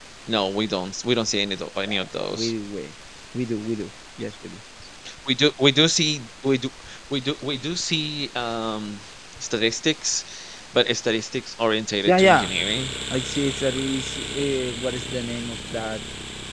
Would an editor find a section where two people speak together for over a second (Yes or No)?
No